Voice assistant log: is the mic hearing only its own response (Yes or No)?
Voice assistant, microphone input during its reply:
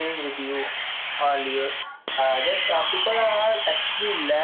Yes